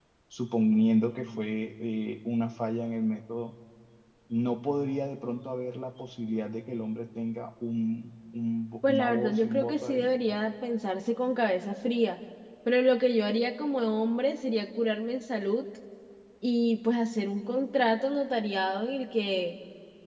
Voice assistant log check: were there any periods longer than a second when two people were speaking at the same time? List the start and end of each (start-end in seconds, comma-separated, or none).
8.9-10.2